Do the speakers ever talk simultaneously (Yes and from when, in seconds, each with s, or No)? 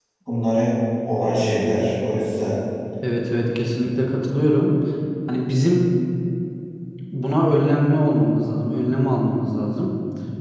No